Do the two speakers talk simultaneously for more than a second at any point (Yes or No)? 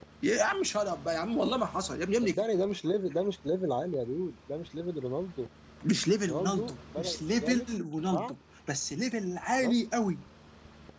Yes